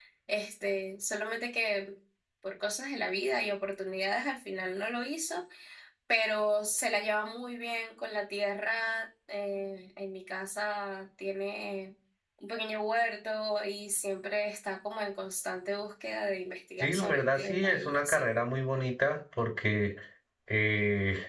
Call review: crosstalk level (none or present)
present